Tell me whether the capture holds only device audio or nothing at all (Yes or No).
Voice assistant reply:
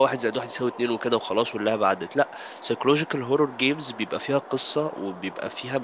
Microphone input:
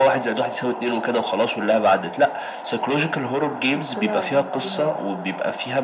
No